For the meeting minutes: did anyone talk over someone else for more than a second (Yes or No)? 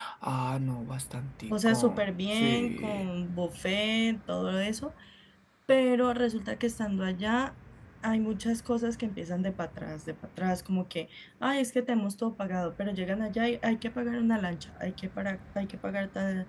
Yes